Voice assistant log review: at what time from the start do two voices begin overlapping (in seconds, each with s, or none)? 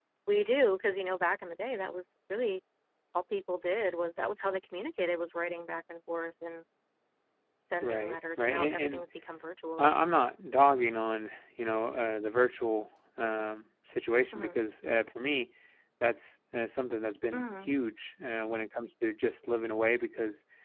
7.8 s